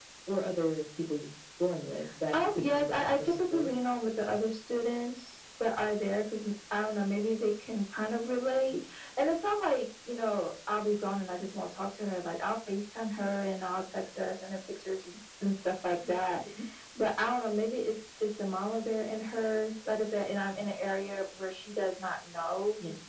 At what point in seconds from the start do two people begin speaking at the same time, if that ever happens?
2.3 s

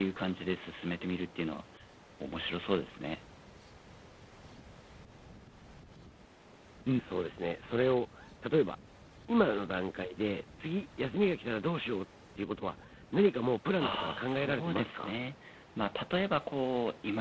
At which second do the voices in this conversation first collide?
13.8 s

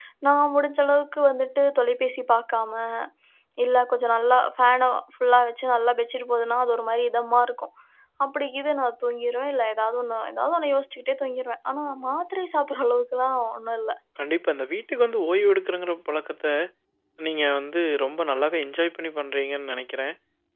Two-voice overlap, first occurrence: none

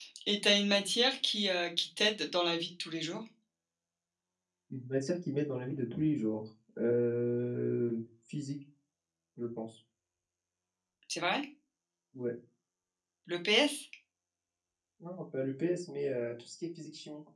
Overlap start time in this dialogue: none

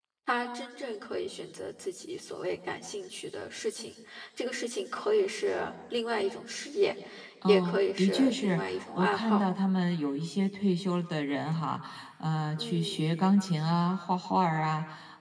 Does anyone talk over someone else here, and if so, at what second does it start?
7.5 s

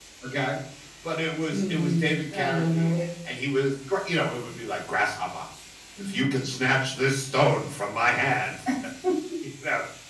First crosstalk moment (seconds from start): 1.5 s

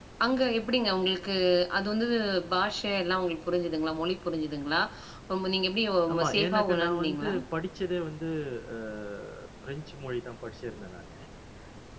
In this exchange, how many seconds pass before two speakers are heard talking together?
6.1 s

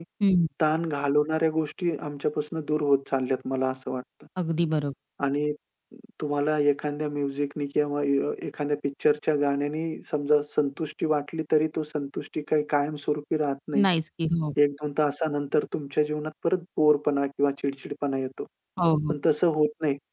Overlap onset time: none

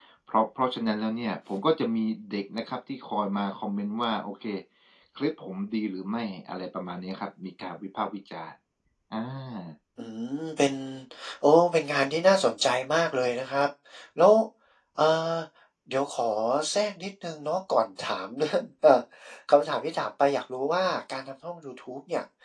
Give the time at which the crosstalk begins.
none

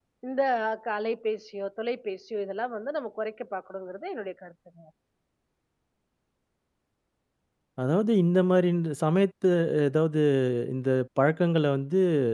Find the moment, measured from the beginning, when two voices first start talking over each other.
none

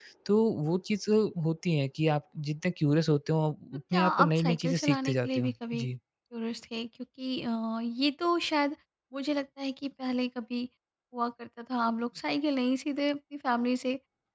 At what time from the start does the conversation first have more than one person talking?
3.9 s

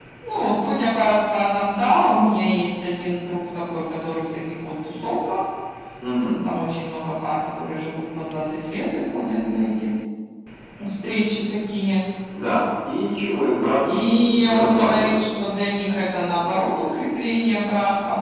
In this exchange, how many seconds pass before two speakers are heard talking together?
13.9 s

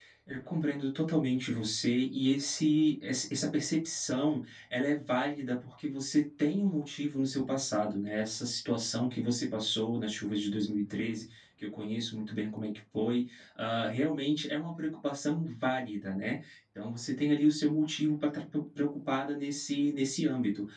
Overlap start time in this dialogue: none

